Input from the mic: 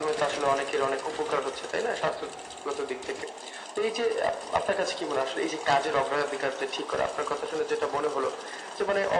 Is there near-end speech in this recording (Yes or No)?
No